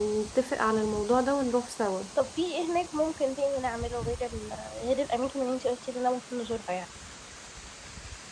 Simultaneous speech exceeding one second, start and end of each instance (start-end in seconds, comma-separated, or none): none